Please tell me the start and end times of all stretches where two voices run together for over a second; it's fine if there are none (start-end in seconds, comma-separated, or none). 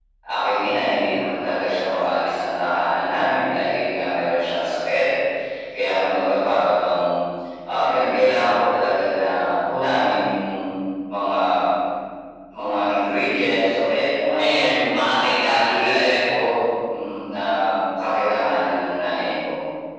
14.4-16.1